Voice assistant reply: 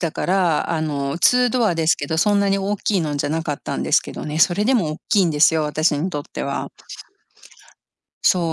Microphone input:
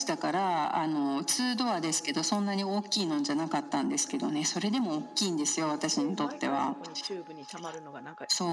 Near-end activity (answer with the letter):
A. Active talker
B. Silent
A